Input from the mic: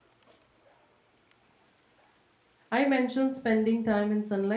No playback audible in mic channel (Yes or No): Yes